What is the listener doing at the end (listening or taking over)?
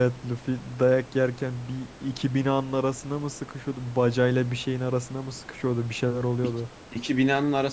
taking over